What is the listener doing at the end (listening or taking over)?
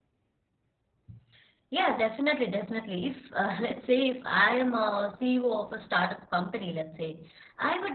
listening